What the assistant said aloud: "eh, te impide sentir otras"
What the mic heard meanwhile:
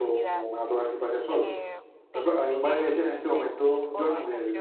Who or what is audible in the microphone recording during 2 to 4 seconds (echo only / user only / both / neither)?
both